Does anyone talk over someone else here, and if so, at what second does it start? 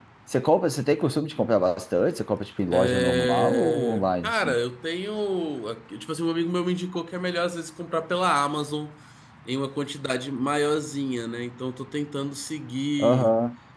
2.7 s

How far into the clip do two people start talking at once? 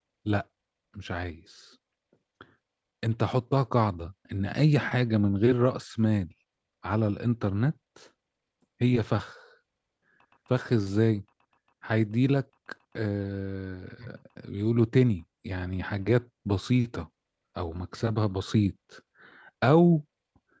none

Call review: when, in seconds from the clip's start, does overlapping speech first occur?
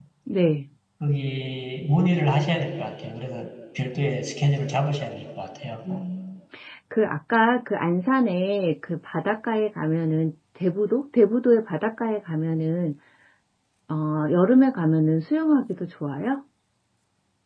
none

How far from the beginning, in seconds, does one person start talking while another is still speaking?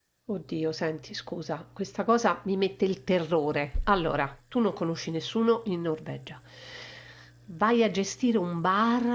none

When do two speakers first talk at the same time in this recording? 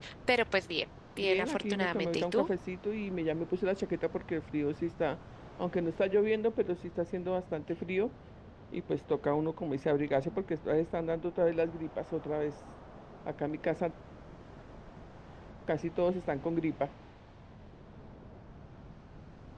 1.2 s

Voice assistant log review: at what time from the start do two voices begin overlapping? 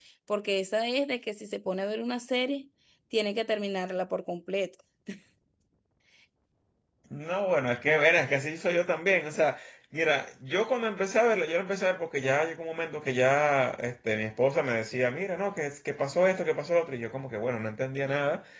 none

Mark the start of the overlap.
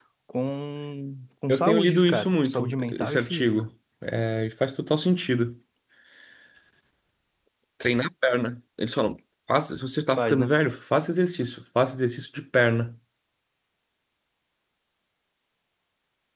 1.5 s

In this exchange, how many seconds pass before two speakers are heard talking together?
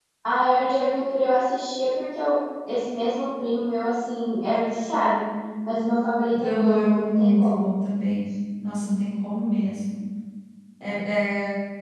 6.4 s

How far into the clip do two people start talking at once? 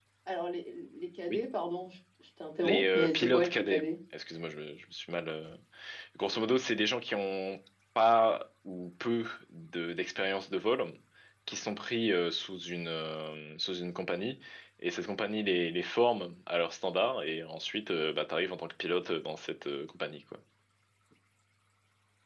2.6 s

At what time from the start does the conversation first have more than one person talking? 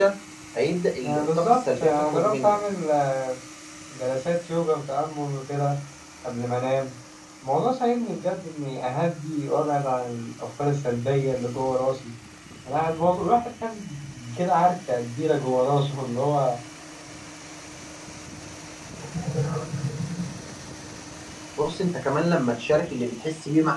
1.0 s

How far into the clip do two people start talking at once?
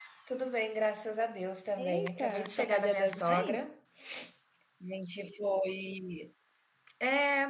1.8 s

